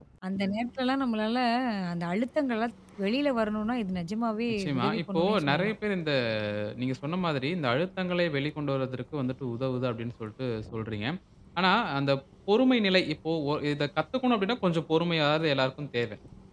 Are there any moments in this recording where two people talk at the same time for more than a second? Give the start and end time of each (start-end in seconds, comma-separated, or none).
4.5-5.7